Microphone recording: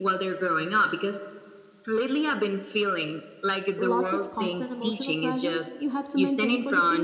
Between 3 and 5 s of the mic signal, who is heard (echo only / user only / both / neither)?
both